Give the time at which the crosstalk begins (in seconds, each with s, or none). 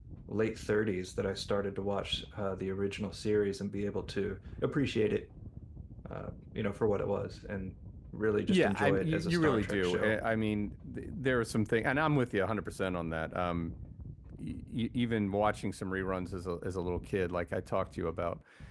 8.5 s